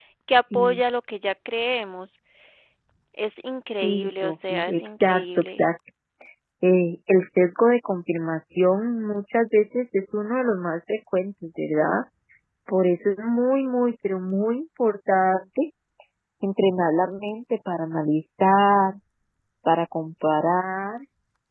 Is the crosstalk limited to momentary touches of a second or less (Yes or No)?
No